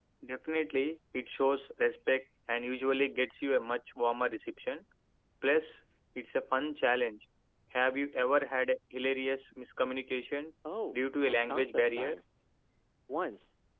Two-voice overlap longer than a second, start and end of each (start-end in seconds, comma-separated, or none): 10.9-12.1